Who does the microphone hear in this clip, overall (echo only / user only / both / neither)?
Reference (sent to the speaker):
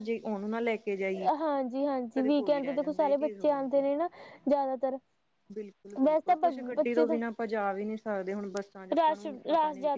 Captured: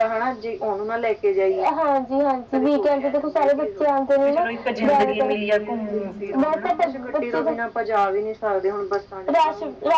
both